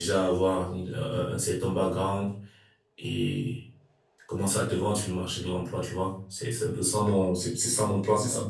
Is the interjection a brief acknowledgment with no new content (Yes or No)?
No